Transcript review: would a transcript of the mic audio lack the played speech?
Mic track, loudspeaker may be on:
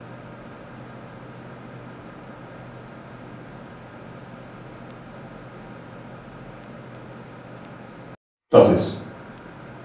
Yes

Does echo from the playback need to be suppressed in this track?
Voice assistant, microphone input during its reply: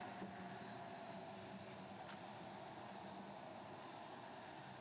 No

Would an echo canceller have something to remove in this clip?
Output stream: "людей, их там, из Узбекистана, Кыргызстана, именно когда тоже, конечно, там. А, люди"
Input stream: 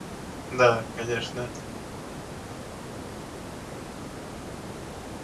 No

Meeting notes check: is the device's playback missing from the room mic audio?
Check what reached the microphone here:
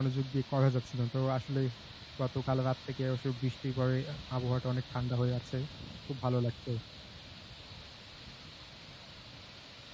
Yes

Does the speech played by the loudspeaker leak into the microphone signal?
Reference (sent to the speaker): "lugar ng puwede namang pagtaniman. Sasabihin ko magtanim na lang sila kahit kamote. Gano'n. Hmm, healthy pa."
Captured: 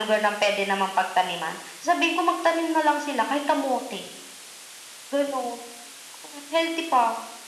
Yes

